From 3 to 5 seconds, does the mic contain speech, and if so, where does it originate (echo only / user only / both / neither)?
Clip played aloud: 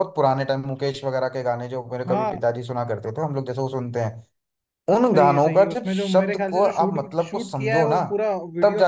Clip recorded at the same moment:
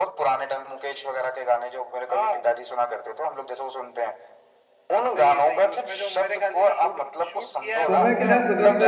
echo only